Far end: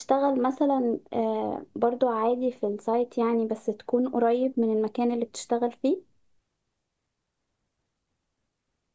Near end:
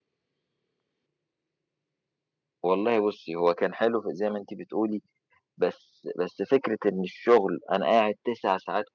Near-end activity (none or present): present